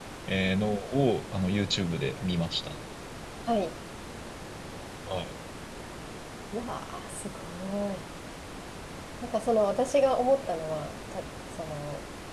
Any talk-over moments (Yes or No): No